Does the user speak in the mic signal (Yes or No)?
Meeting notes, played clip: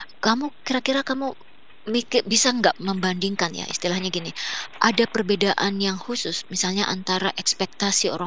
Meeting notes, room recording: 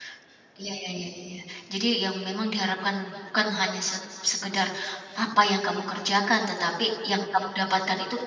Yes